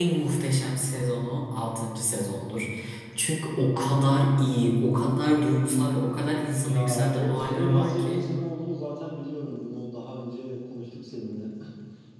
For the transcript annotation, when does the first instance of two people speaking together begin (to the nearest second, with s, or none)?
7 s